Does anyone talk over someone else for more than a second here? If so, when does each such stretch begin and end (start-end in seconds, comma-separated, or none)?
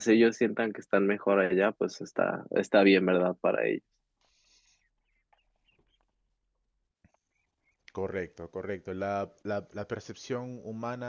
none